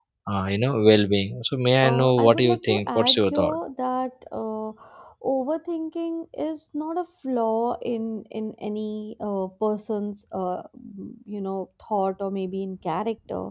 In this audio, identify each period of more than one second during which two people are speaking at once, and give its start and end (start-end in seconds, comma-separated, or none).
1.8-3.6